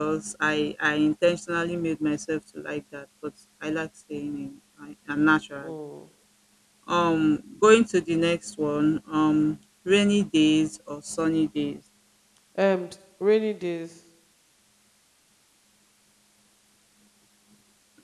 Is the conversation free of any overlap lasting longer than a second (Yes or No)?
Yes